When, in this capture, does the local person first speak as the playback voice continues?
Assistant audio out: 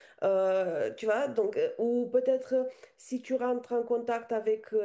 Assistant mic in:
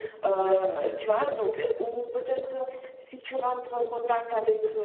none

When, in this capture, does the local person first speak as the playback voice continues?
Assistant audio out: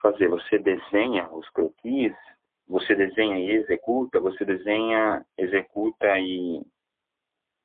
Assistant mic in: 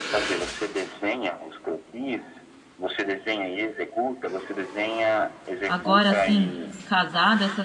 6 s

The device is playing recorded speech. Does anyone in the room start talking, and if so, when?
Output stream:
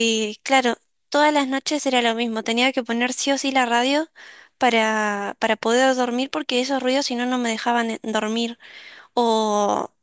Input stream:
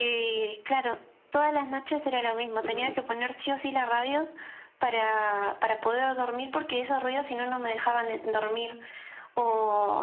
3 s

